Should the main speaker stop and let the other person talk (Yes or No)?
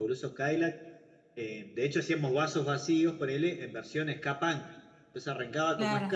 No